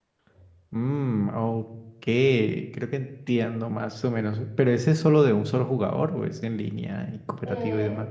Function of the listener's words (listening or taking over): taking over